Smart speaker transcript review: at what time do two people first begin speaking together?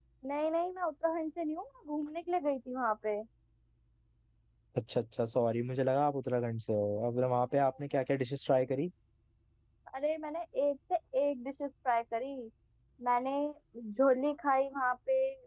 none

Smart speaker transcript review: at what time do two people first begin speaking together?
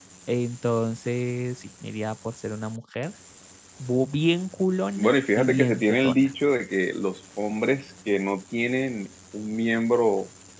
5.0 s

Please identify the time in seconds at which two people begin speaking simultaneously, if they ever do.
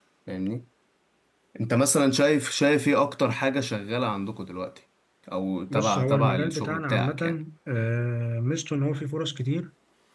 5.7 s

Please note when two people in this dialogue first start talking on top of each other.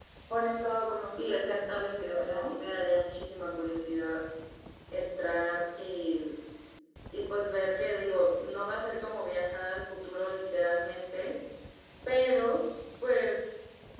1.2 s

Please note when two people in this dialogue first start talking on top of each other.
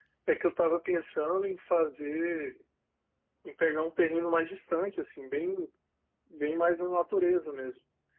none

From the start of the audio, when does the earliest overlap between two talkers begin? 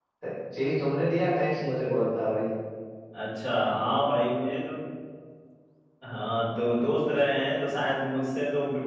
none

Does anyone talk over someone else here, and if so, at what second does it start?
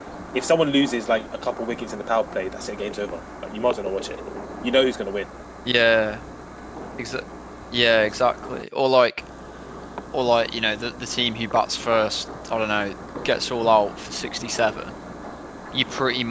none

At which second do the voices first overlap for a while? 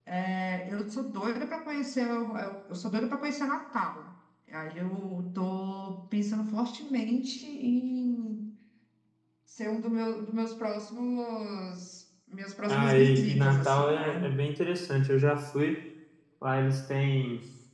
12.7 s

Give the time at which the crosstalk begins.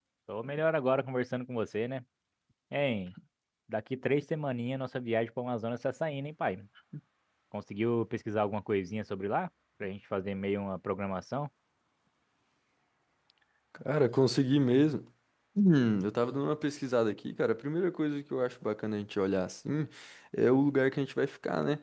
none

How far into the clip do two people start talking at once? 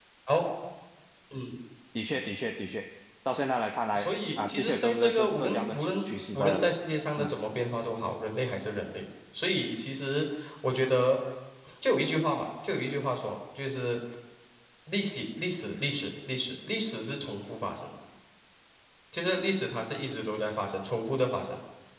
3.9 s

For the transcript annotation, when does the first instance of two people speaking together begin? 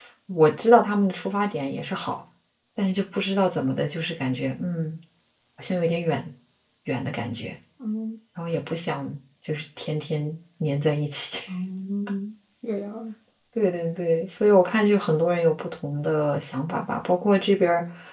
none

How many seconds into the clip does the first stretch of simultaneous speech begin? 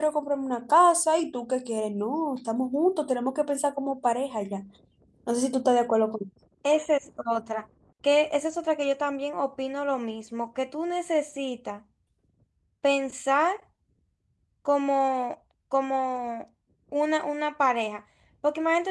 none

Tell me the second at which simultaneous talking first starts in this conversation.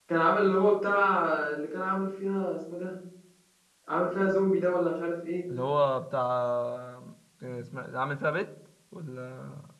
none

